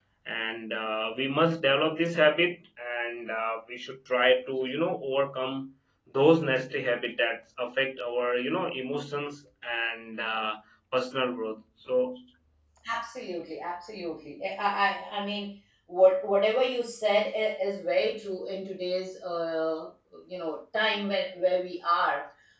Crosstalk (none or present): none